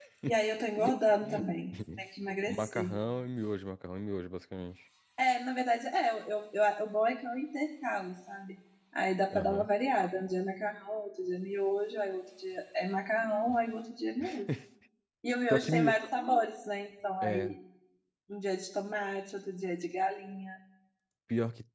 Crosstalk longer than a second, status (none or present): none